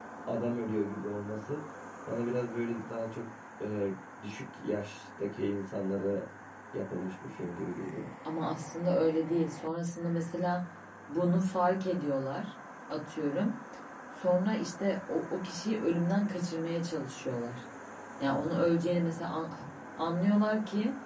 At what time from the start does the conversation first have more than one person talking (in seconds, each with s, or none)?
none